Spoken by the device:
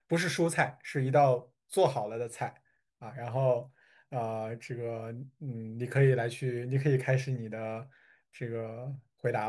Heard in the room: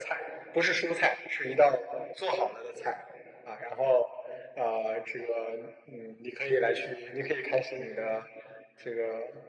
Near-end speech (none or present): none